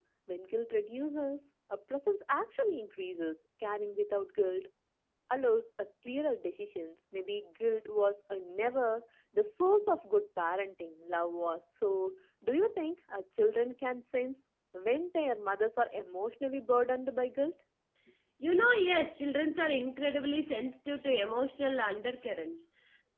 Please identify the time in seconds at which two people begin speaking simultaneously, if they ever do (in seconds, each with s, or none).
none